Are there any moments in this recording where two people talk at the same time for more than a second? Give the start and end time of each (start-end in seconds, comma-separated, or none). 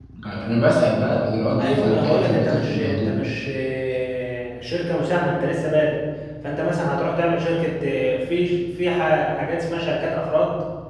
1.6-3.1